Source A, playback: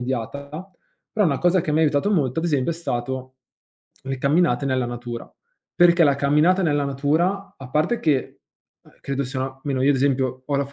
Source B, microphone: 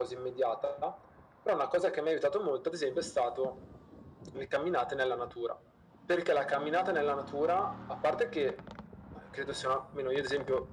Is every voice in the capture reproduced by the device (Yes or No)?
Yes